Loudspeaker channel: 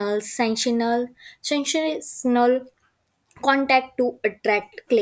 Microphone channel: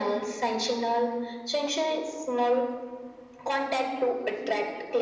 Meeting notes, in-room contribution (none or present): present